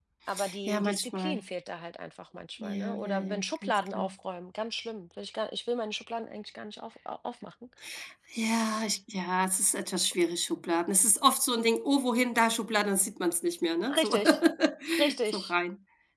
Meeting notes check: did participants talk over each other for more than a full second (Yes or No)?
Yes